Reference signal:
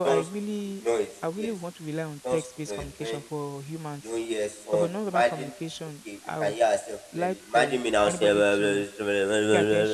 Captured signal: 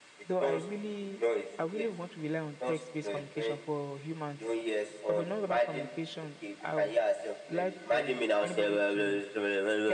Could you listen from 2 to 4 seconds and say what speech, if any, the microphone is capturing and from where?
echo only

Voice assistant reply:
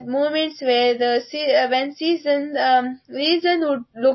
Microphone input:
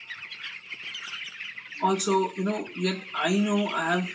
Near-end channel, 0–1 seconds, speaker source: neither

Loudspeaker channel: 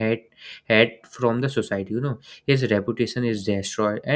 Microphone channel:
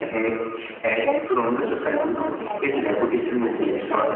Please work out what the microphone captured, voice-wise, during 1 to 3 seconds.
both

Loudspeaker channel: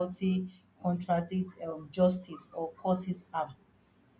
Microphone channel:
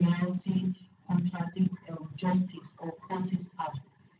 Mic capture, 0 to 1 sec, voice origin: echo only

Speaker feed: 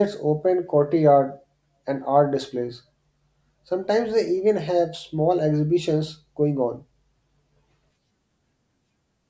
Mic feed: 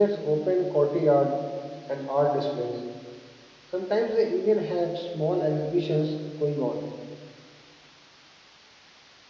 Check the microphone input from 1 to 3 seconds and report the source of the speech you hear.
echo only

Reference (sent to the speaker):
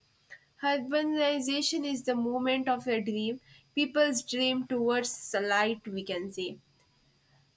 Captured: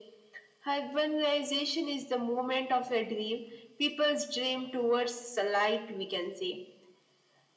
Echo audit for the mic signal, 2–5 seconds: echo only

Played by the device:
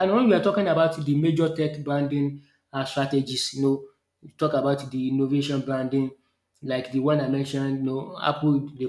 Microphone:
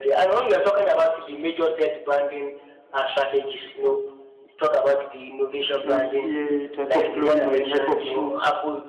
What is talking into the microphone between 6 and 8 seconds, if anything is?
both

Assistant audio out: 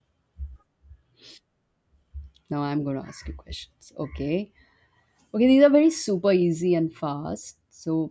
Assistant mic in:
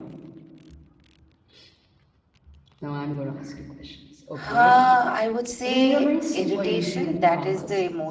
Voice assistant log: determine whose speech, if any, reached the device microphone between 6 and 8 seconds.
both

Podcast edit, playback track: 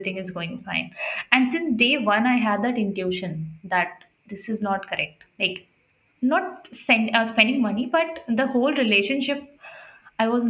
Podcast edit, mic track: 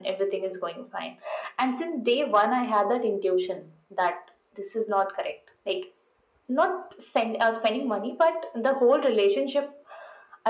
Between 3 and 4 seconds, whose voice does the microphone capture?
echo only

